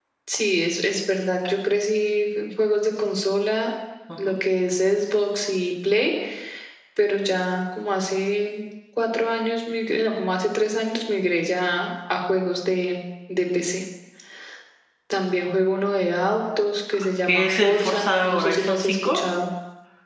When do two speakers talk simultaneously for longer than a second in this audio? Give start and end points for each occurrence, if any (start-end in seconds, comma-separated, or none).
17.2-19.2